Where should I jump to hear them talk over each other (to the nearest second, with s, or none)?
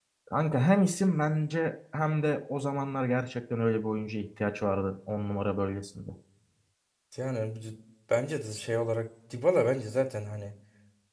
none